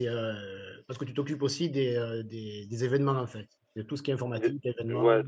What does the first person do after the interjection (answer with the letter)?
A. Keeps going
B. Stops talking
B